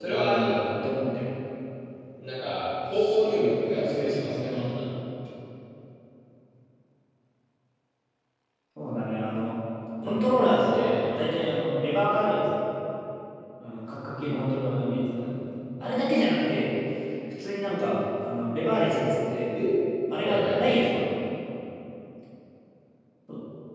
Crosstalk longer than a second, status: present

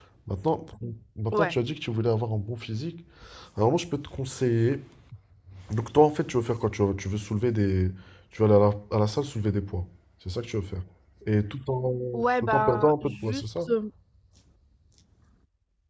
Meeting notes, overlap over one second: present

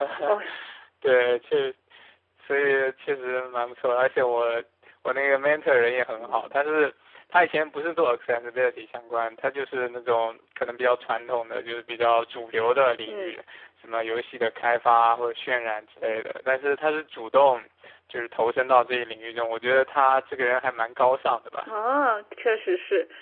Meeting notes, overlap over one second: none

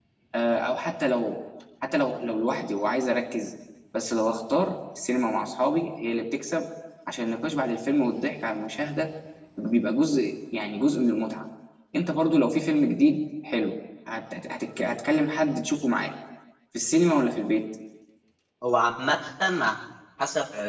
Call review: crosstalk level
none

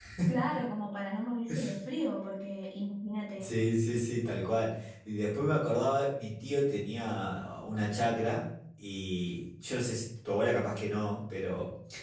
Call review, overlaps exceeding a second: none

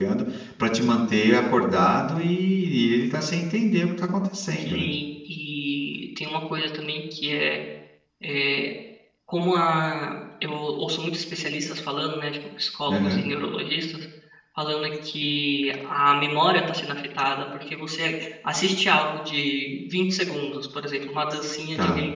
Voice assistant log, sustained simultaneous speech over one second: none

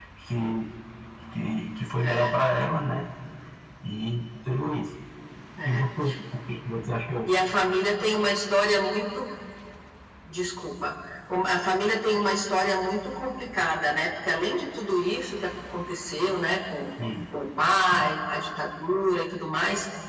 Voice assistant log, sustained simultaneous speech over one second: none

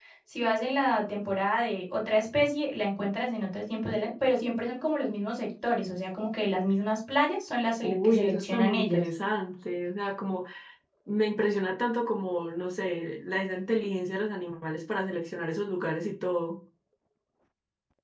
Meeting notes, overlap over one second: present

